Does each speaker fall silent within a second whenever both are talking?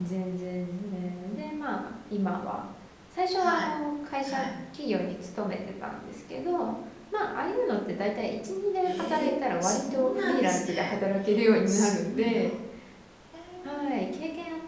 No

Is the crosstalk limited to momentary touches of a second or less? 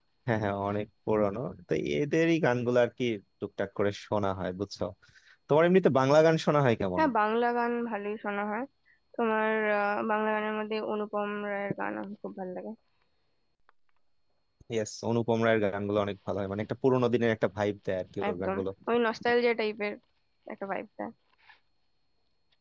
Yes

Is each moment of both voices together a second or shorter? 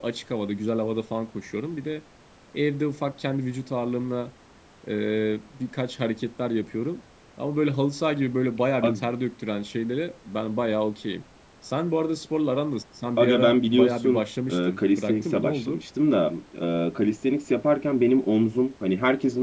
No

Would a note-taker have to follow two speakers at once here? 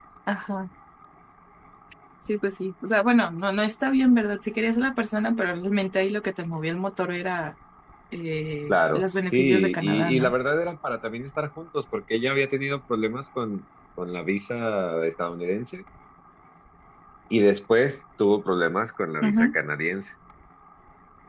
Yes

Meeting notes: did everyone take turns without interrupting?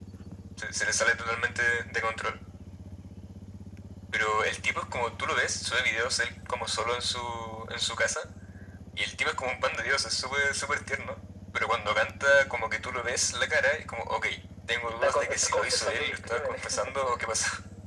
No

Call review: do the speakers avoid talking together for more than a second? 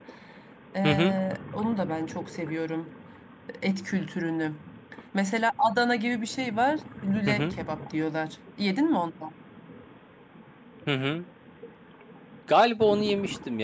Yes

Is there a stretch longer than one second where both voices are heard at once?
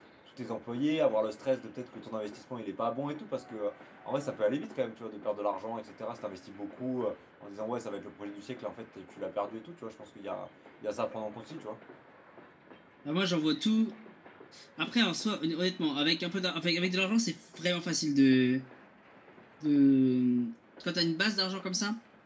No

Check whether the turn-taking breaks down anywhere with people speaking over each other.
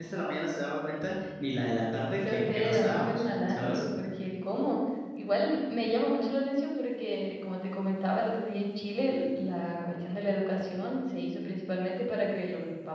Yes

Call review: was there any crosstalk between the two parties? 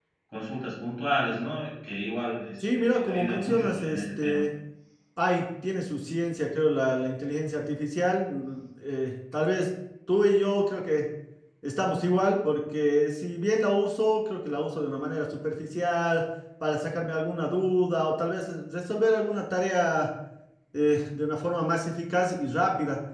Yes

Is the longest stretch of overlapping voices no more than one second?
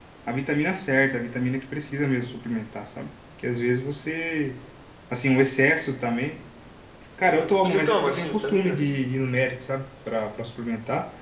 No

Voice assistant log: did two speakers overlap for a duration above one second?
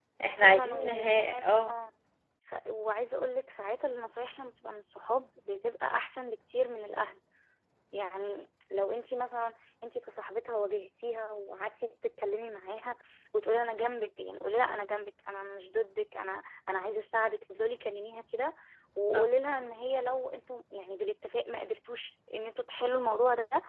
Yes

